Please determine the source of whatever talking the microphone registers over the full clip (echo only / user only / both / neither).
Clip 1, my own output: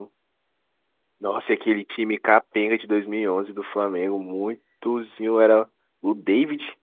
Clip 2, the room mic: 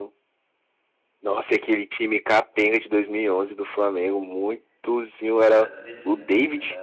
both